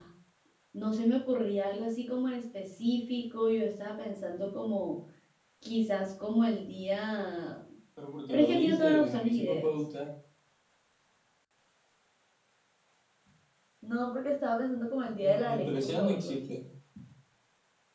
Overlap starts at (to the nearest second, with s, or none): 8 s